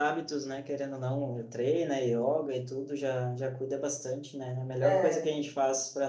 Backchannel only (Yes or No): Yes